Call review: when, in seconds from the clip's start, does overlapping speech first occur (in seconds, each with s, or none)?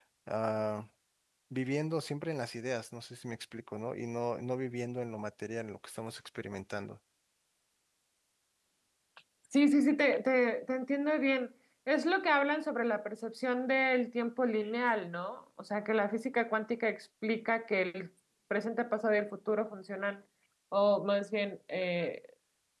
none